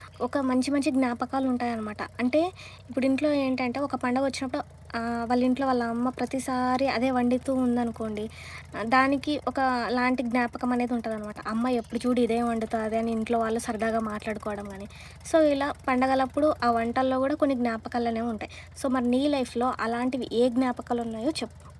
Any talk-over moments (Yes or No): No